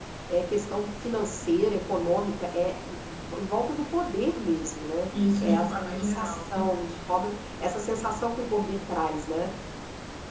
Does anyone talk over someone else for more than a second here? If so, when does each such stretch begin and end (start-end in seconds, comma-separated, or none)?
5.4-6.7